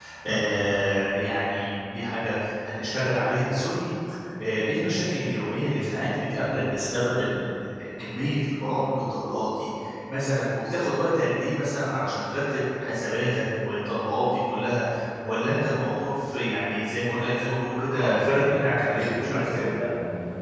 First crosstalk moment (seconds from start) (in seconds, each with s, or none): 17.8 s